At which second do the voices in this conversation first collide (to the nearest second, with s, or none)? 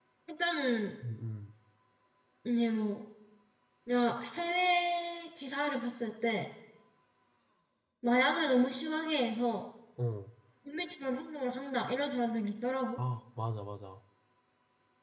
none